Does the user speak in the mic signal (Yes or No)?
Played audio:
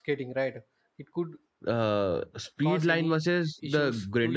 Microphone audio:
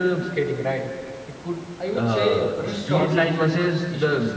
Yes